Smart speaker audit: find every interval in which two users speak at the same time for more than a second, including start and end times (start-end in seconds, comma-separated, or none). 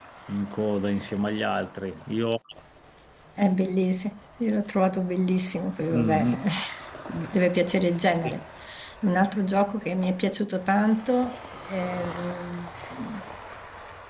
none